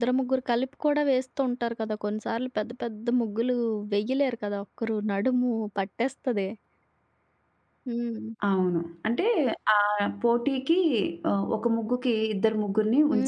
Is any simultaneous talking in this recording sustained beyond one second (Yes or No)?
No